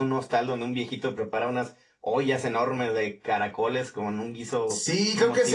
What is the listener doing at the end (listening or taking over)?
taking over